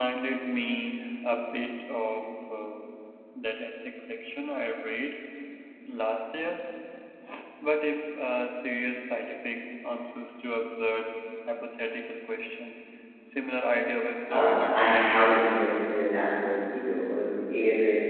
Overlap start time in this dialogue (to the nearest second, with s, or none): 14 s